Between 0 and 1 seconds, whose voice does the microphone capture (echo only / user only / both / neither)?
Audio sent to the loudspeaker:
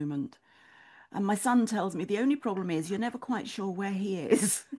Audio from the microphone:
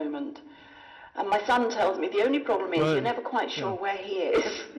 echo only